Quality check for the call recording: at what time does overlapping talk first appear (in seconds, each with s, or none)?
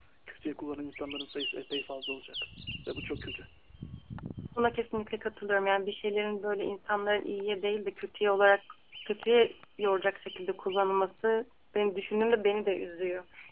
none